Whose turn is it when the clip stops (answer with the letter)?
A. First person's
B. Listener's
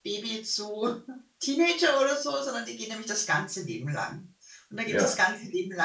A